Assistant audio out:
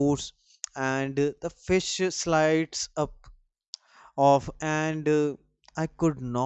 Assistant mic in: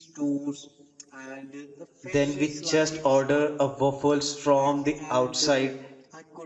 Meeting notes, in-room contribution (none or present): present